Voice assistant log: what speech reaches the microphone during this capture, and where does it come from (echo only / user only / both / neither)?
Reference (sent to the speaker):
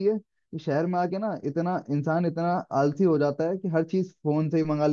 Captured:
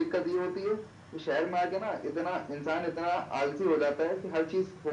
echo only